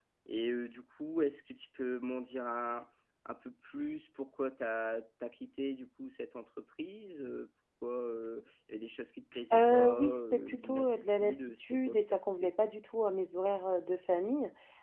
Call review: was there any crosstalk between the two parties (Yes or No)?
Yes